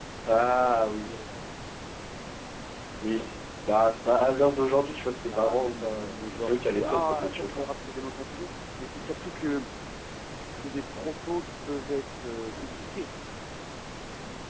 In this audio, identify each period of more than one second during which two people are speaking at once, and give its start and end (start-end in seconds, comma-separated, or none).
5.3-7.7